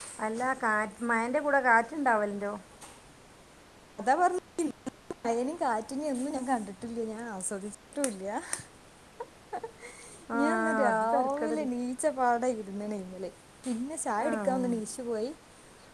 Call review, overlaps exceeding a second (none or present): present